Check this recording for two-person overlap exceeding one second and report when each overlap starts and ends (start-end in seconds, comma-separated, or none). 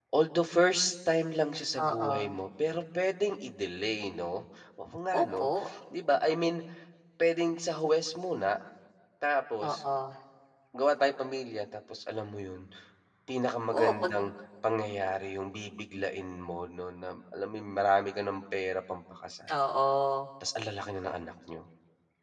none